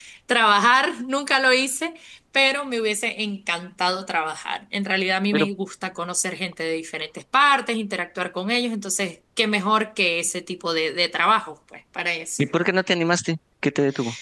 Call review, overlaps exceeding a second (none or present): none